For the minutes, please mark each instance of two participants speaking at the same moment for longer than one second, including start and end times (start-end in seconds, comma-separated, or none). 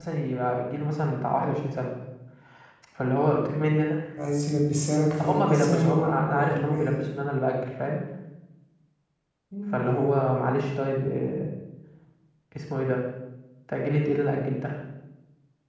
5.2-7.0